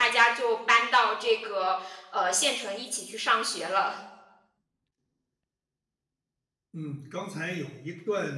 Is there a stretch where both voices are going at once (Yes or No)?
No